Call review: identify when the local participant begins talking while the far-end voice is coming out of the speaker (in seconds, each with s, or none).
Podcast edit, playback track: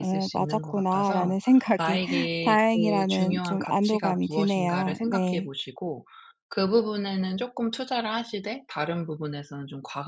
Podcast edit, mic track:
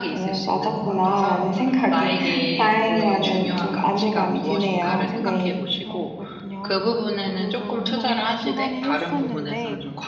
5.1 s